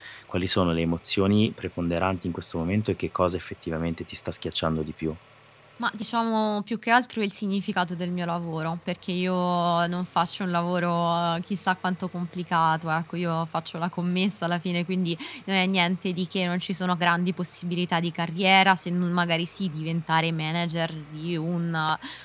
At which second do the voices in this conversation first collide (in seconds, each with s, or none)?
none